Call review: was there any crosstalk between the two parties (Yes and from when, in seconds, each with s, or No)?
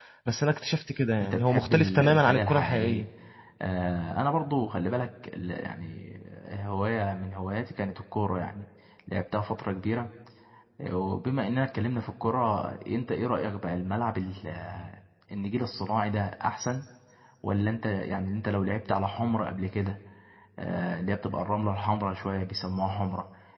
Yes, from 1.2 s